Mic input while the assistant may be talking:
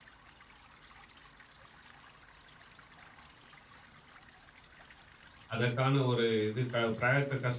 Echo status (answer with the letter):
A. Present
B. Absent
B